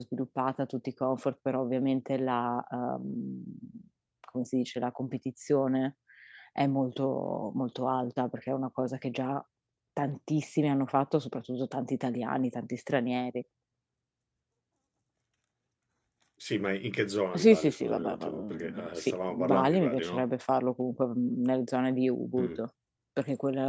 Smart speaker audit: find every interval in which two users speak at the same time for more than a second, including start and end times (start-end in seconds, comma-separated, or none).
17.3-20.2